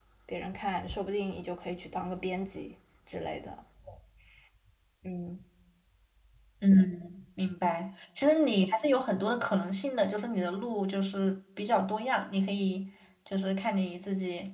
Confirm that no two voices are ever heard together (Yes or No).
Yes